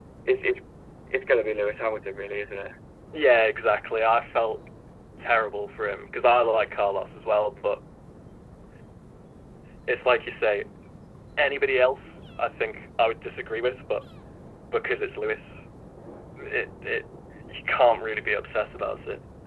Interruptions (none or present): none